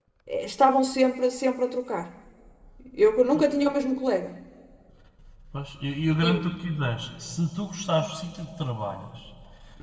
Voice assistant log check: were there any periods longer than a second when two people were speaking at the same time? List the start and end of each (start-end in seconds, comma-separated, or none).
none